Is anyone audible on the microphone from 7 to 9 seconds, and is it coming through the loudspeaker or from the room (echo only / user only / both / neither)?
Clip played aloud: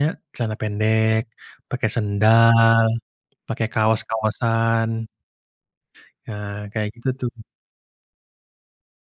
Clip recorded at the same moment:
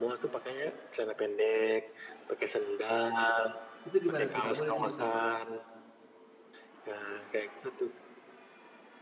echo only